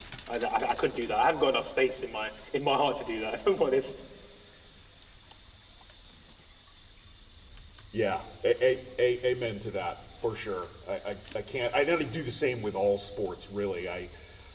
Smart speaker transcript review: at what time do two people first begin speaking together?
none

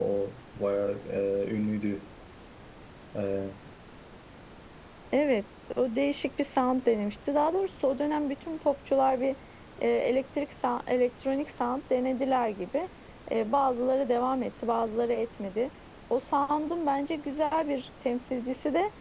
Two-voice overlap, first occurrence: none

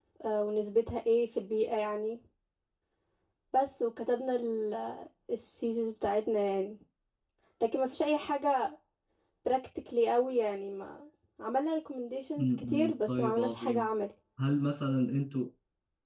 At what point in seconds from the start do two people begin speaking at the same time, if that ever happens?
12 s

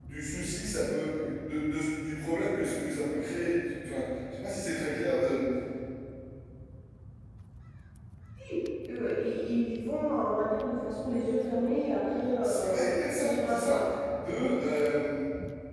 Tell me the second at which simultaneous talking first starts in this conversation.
12 s

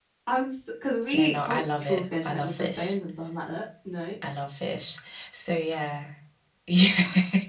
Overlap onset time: 1 s

